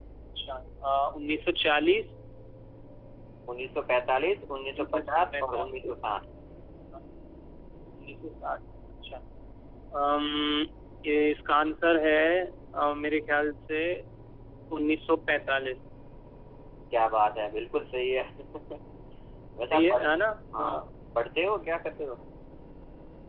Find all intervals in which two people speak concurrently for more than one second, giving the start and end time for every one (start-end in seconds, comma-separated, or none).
4.8-6.0